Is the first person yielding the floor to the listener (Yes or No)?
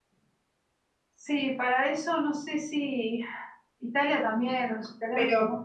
Yes